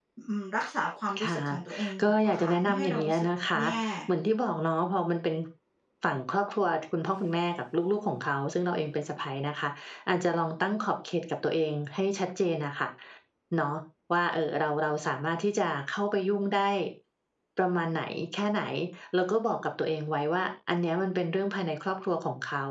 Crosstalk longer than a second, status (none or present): present